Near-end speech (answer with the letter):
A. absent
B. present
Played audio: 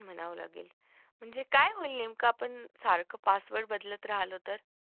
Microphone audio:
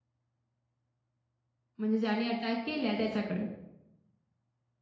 B